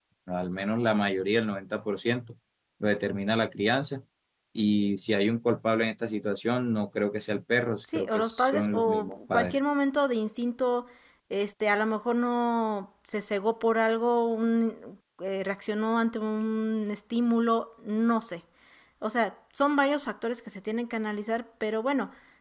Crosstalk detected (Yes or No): Yes